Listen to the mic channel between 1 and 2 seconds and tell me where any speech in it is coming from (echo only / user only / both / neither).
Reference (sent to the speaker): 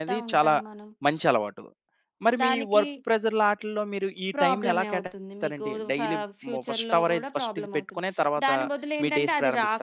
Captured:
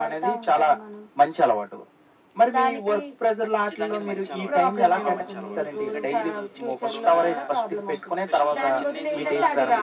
echo only